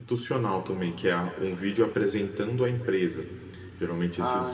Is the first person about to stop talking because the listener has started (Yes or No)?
No